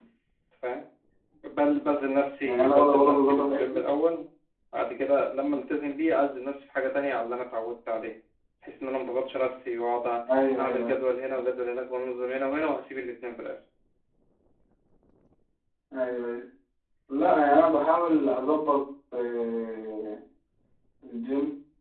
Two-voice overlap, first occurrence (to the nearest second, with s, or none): 2 s